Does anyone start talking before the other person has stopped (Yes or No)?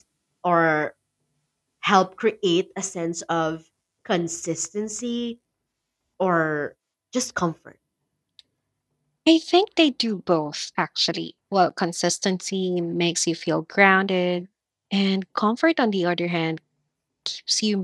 No